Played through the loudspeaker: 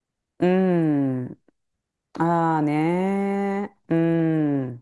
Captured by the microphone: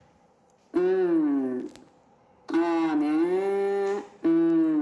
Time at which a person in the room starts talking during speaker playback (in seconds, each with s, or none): none